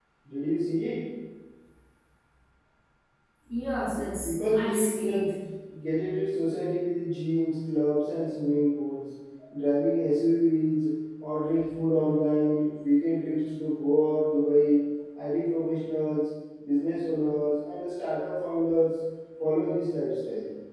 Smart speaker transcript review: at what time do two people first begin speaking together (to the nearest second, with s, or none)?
4 s